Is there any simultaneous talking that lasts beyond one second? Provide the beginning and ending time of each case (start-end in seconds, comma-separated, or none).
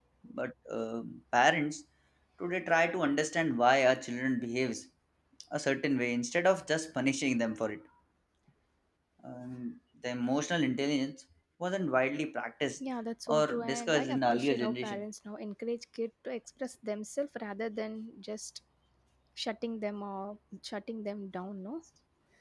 13.3-15.0